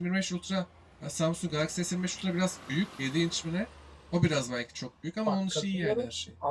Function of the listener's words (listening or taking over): taking over